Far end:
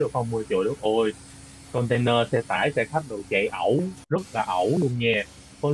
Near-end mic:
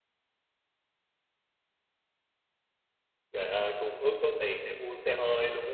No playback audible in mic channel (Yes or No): Yes